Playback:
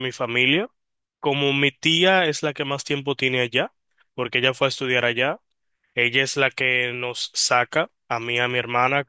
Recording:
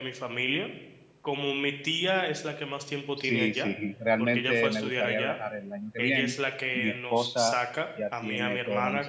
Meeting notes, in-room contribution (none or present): present